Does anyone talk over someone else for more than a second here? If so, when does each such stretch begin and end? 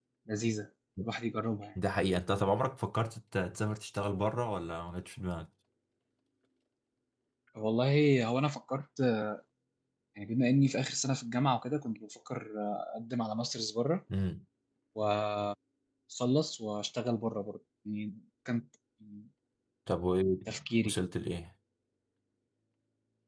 none

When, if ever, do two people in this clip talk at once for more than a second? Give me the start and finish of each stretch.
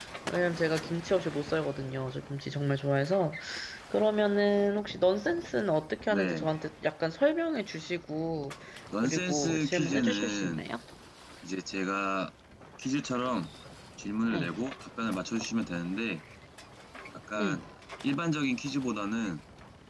9.0-10.7

